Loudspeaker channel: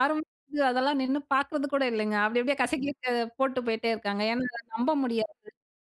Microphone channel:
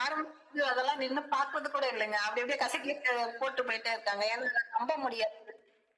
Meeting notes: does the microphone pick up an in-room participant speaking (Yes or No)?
No